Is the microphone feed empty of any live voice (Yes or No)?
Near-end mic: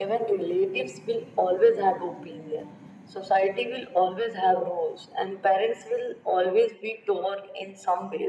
Yes